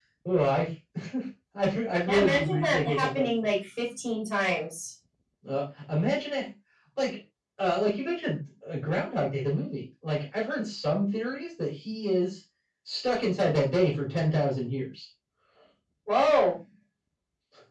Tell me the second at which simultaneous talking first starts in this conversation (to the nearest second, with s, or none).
2 s